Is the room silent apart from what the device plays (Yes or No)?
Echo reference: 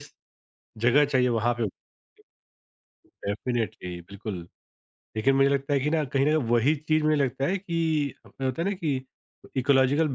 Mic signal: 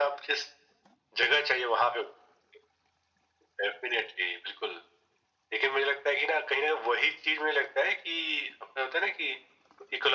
Yes